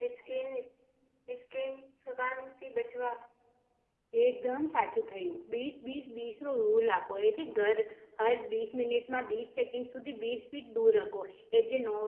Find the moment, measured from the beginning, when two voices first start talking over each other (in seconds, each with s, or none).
none